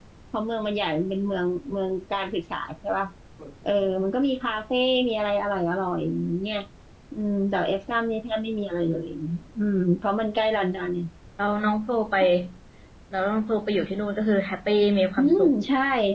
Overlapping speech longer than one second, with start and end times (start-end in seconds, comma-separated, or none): none